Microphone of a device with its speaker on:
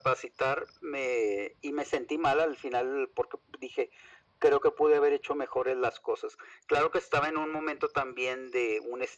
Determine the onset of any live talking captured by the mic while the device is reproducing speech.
none

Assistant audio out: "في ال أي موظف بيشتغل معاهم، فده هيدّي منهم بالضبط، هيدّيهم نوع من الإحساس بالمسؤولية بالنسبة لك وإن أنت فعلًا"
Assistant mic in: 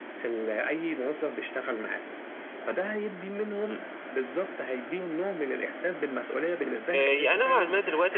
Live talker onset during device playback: 6.9 s

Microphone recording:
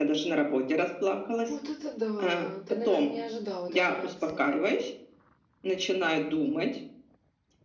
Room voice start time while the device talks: 1.5 s

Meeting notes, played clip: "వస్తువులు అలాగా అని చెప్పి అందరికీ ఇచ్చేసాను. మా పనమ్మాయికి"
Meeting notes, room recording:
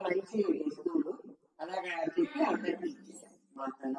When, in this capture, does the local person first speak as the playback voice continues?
2.2 s

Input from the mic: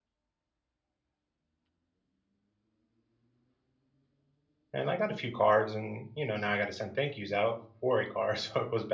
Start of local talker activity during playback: 4.7 s

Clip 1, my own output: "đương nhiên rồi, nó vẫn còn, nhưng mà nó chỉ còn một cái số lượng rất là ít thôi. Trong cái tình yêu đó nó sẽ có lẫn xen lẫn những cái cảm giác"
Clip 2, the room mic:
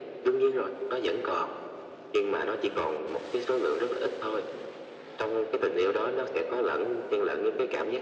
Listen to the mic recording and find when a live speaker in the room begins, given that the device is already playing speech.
none

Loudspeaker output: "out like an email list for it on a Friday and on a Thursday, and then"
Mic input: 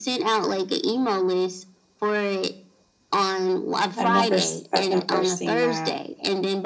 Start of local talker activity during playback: 4.0 s

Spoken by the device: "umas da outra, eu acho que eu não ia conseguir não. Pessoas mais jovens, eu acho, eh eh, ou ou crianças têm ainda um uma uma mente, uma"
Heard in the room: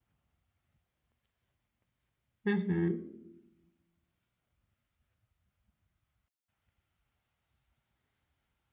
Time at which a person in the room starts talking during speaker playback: 2.5 s

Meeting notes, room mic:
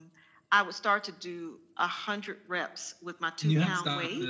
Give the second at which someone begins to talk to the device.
3.4 s

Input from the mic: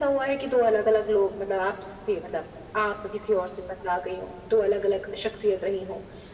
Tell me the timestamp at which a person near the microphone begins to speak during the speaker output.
none

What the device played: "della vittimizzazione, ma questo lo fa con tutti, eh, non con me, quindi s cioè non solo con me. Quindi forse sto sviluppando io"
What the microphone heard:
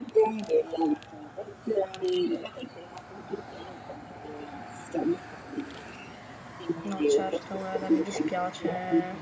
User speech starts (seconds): 6.8 s

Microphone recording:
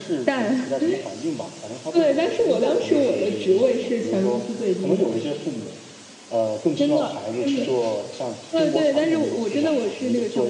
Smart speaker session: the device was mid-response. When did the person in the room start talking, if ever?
none

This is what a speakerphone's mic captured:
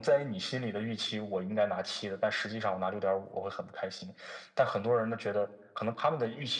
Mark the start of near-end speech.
none

